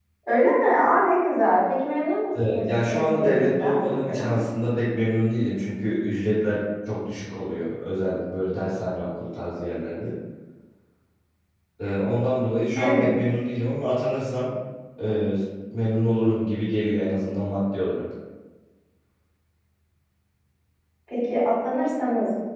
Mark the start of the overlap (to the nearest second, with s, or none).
2 s